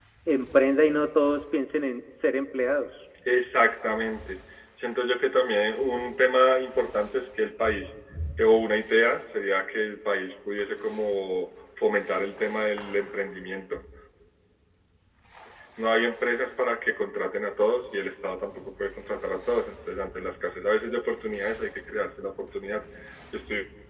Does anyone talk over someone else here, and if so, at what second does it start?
none

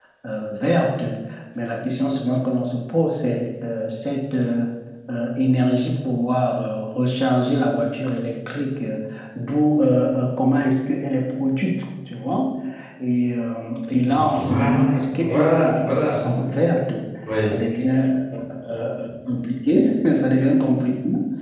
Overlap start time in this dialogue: 14.1 s

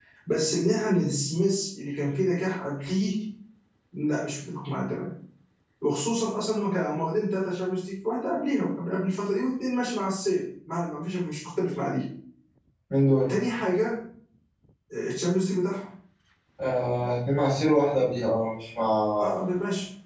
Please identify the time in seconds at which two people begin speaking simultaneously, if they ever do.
none

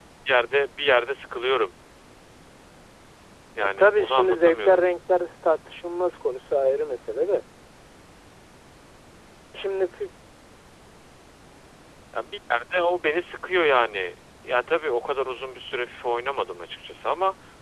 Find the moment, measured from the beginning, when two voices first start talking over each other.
3.6 s

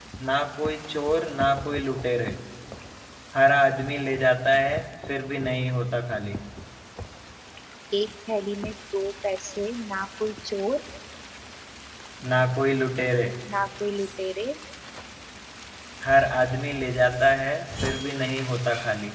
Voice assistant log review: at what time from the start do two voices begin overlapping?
none

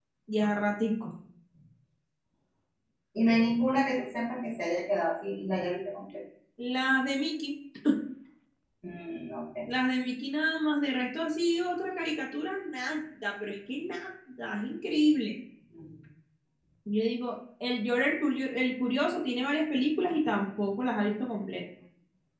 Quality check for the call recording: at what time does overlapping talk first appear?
none

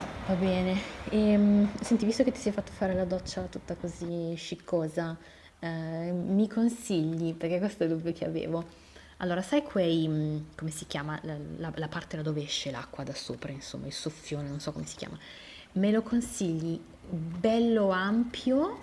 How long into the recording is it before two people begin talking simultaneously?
none

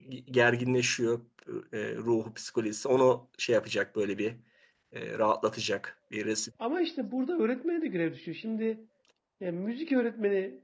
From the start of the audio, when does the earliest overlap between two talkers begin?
none

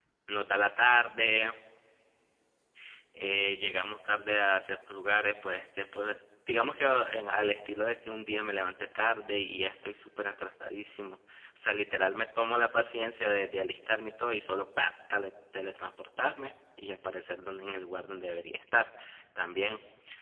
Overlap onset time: none

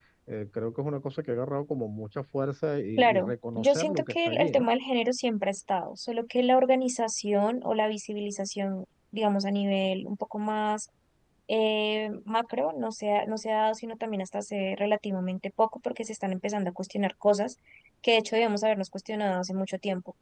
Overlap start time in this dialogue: 3.0 s

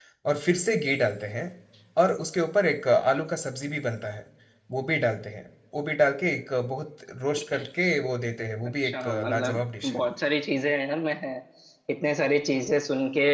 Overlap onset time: 8.6 s

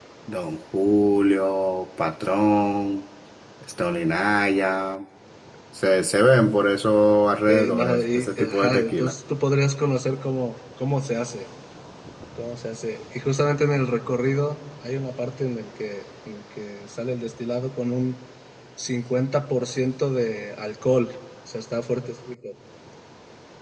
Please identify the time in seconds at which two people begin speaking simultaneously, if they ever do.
7.5 s

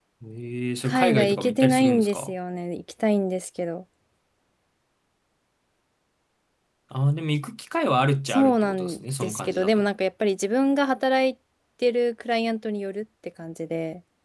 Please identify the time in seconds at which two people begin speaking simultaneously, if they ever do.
0.8 s

